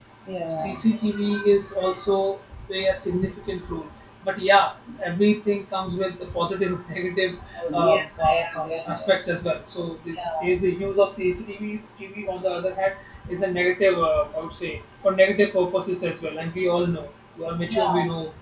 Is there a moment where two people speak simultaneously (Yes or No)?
Yes